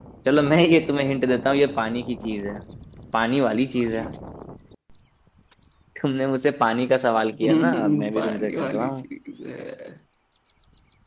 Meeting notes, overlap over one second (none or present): present